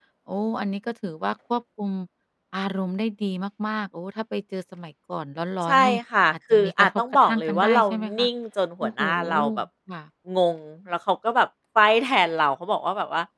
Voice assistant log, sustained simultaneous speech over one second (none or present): present